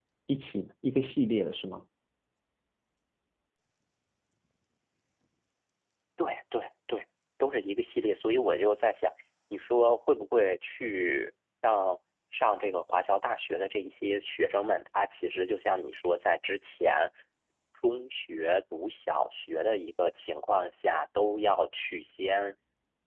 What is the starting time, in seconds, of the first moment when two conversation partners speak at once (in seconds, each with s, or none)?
none